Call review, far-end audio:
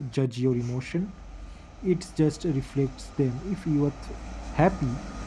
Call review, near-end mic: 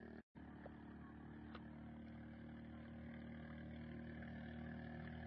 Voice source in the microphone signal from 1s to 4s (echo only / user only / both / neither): neither